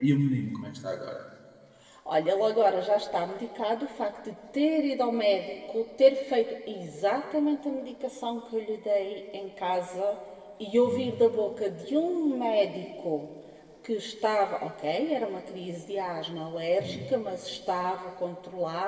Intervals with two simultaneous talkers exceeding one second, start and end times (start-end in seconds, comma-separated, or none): none